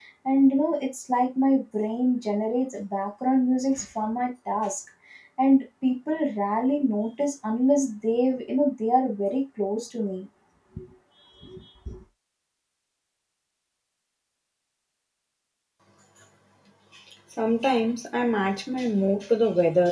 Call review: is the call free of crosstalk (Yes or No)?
Yes